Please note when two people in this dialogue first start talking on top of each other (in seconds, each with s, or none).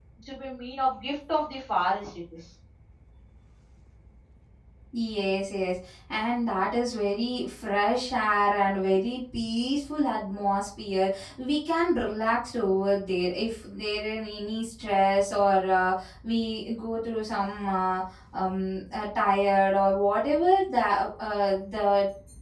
none